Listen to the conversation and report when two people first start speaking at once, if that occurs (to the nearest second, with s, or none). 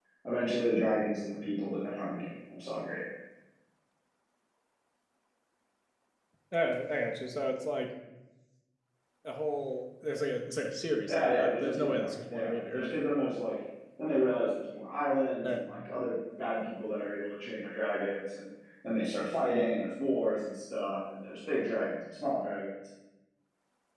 11 s